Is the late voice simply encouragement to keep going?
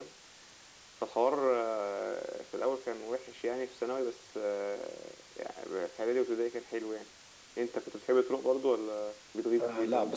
No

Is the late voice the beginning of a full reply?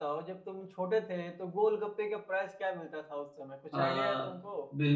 Yes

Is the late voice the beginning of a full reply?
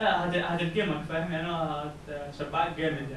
Yes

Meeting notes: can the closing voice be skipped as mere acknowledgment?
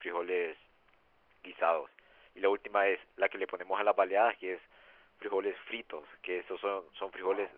Yes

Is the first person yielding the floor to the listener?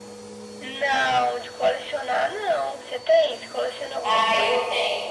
Yes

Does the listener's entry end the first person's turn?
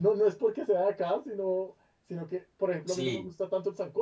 No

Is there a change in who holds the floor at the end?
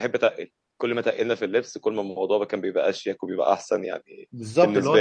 Yes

